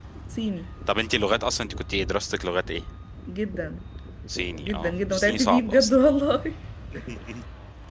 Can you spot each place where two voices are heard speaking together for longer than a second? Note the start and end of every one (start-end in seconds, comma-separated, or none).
4.6-6.0